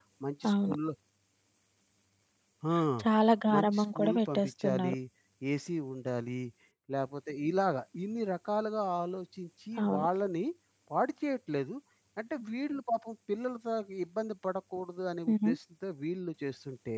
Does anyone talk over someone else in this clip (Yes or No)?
Yes